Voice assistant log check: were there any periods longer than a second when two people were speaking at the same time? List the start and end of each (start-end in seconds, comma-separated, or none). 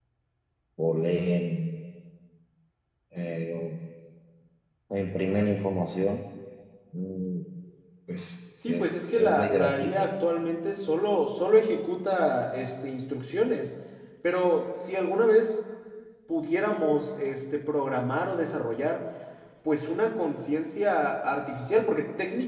8.7-10.0